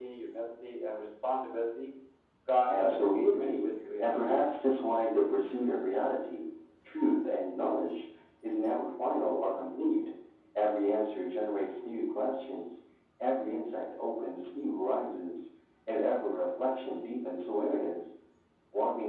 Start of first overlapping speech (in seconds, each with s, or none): 2.7 s